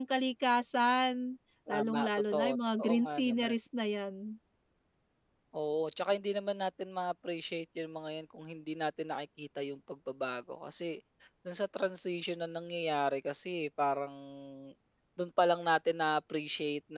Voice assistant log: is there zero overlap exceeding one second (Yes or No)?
No